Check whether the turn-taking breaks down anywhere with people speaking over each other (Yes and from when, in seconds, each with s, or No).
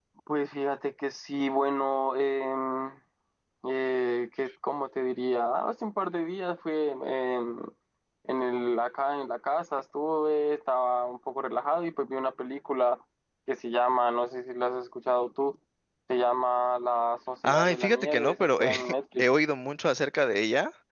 Yes, from 17.4 s